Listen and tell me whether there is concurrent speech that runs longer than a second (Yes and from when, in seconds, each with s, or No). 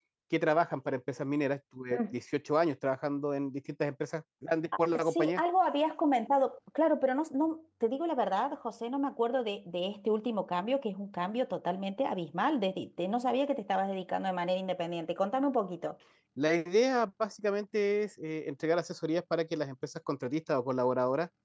No